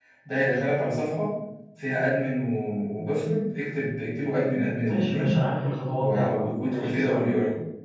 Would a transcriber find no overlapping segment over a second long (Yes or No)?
No